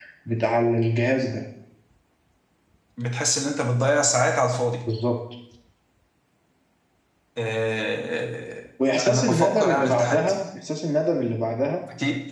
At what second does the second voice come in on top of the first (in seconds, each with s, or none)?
9.1 s